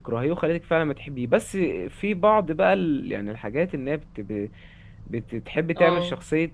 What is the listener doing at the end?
listening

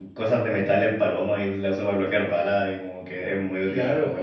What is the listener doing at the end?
taking over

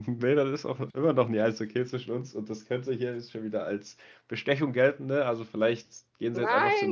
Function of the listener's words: taking over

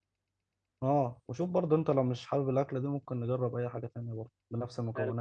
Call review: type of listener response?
taking over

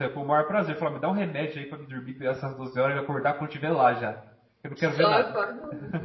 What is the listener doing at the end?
taking over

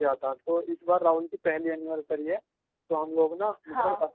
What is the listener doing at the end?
taking over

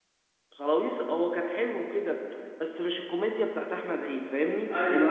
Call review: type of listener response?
taking over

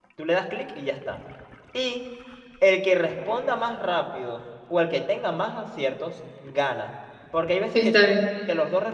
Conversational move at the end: listening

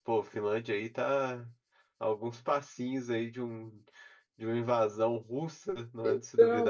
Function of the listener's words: taking over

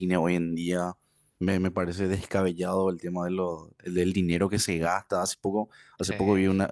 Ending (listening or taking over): listening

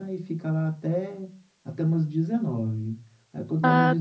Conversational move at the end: listening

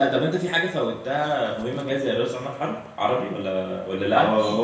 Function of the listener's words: taking over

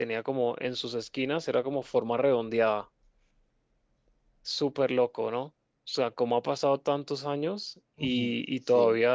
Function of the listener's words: listening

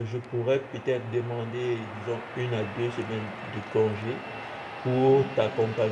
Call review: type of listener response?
listening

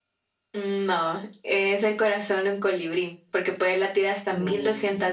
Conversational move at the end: listening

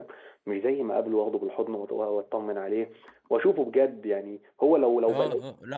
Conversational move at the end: taking over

